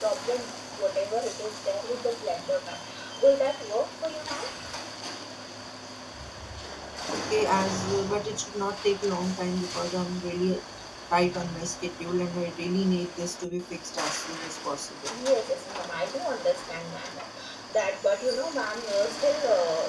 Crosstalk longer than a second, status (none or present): none